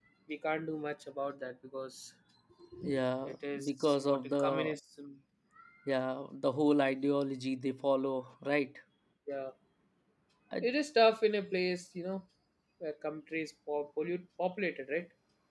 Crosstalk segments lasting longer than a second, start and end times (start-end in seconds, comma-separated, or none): 3.2-4.7